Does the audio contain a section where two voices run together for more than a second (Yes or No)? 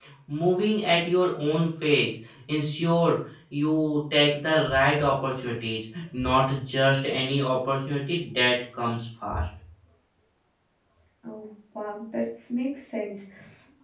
No